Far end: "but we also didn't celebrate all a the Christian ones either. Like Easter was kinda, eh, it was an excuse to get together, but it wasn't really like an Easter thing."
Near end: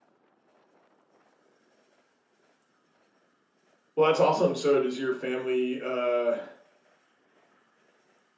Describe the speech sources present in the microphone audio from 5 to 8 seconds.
user only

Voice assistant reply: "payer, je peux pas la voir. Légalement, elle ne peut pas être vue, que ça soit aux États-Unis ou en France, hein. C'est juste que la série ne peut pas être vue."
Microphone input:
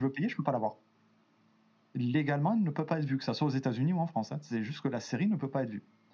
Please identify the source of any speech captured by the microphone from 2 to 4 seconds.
echo only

